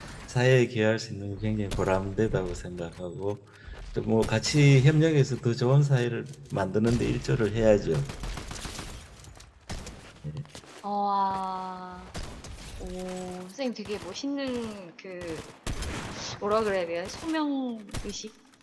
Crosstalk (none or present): none